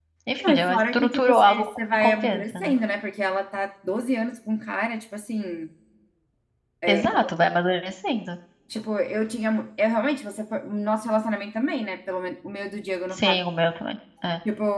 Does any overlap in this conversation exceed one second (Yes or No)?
Yes